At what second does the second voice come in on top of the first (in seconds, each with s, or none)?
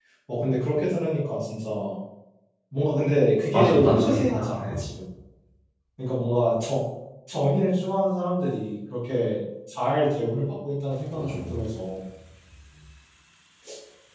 3.5 s